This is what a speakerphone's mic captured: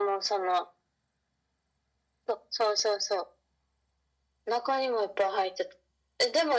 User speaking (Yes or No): No